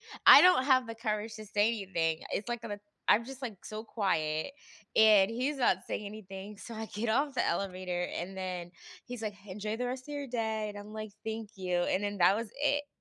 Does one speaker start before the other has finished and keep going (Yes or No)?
No